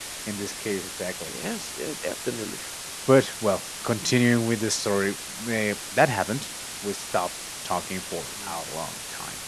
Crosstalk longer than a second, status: none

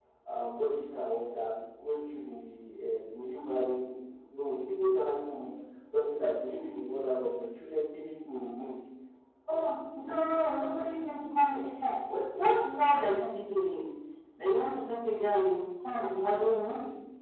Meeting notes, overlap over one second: none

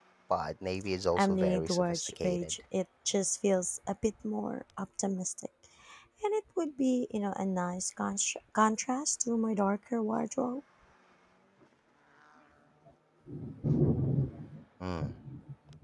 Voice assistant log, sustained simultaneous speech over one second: present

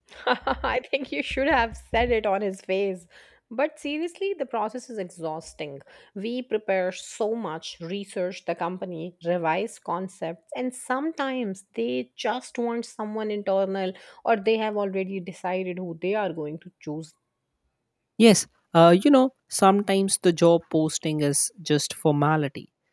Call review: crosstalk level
none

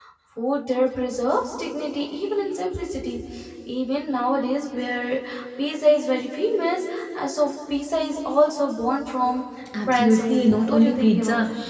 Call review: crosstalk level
present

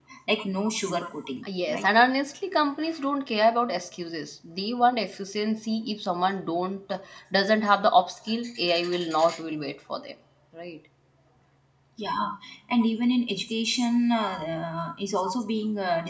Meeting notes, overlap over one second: none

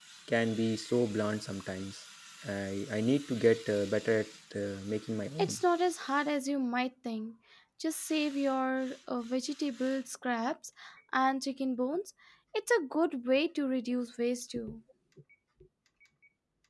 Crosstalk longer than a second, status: none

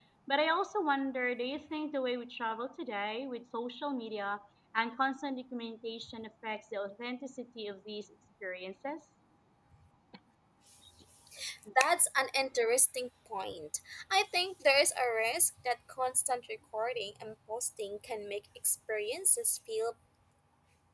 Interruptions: none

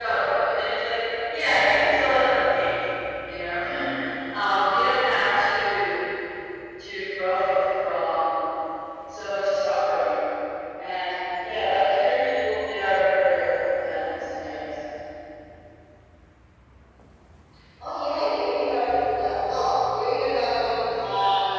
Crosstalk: none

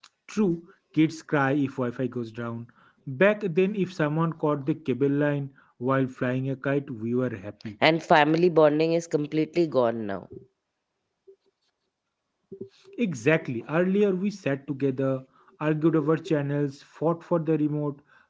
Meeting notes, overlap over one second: none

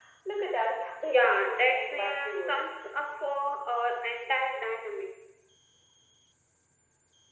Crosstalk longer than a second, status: present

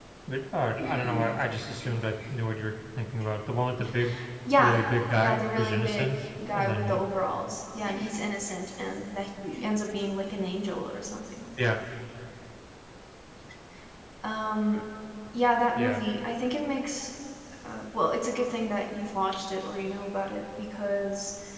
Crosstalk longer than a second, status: present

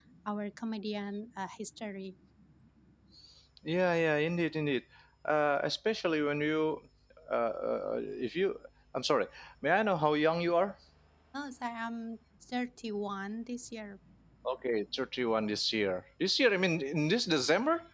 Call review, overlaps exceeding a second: none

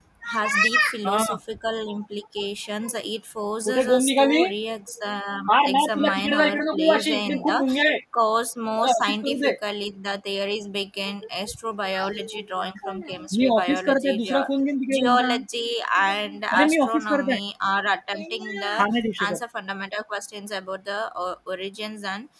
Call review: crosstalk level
present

